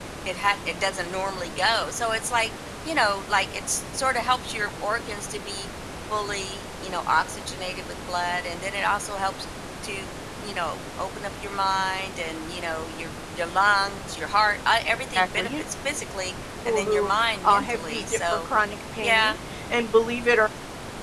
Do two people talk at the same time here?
Yes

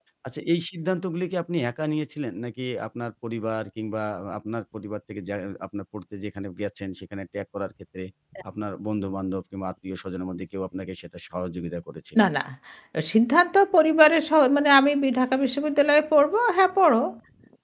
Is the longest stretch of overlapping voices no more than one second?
Yes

